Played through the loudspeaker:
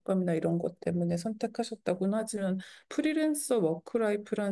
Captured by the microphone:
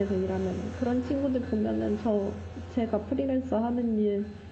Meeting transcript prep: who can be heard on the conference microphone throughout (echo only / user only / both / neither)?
user only